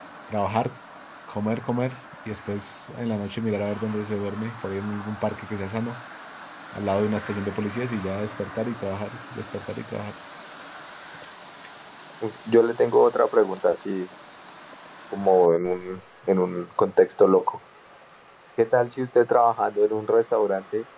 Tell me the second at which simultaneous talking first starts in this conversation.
none

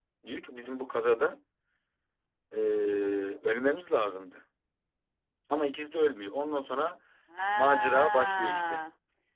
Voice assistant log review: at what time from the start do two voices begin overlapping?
7.5 s

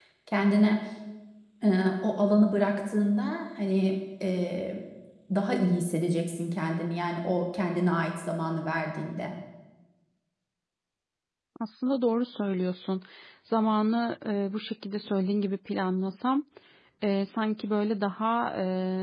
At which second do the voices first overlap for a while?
none

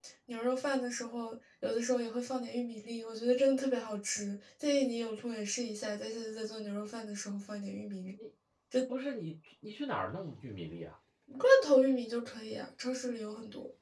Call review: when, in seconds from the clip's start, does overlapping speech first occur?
none

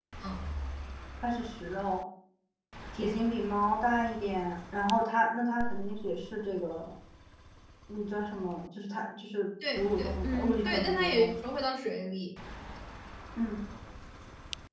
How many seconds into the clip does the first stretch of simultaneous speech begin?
9.6 s

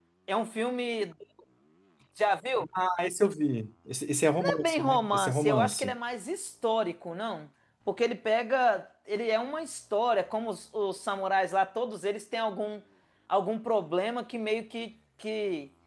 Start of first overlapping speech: 4.3 s

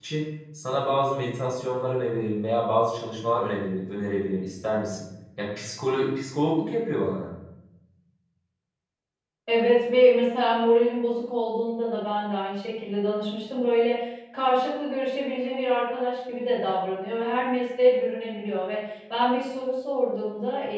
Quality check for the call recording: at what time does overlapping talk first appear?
none

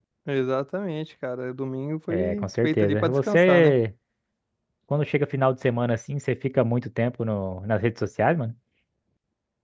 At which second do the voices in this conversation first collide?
2.1 s

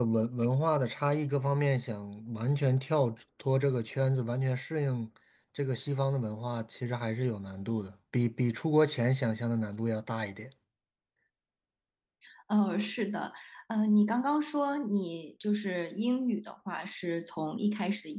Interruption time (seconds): none

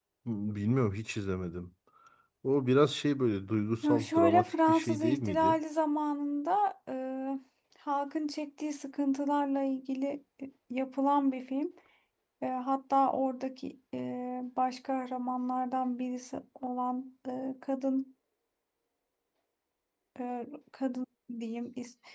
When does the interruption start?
3.8 s

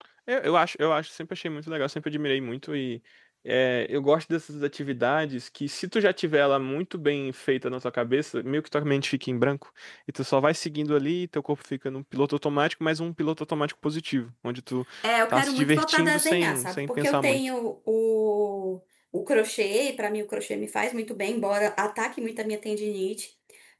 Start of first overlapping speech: 15.3 s

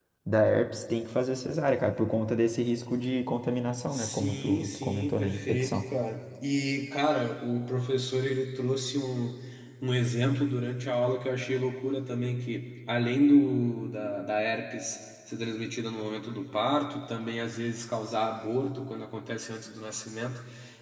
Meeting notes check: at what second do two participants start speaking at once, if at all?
3.9 s

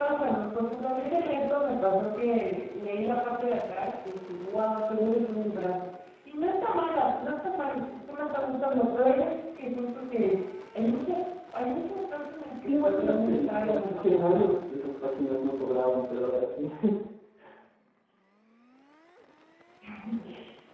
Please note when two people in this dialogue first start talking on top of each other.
12.6 s

